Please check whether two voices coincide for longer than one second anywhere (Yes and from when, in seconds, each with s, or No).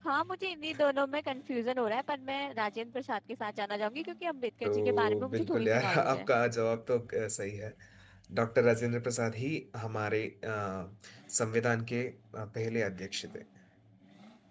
Yes, from 4.6 s